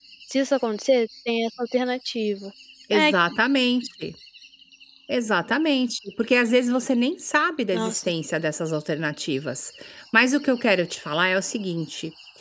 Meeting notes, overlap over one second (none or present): none